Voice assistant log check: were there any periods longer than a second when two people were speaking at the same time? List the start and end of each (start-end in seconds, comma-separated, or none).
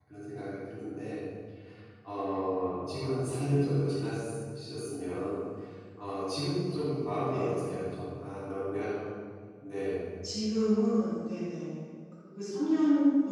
none